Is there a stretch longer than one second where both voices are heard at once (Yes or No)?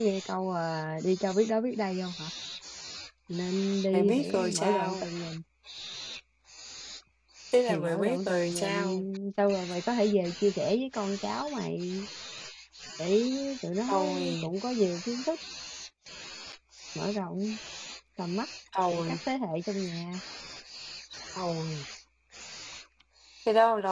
Yes